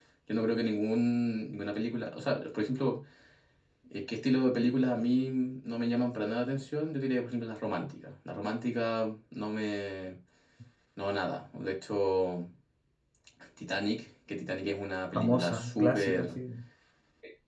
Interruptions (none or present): present